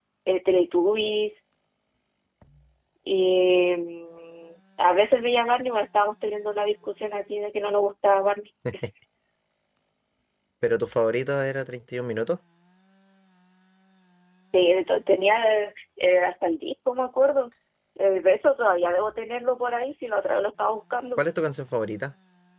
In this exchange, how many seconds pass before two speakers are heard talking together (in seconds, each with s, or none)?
none